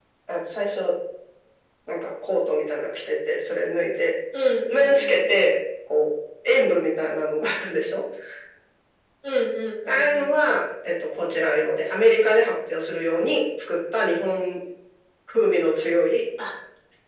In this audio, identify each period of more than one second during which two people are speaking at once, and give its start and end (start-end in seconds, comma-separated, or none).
none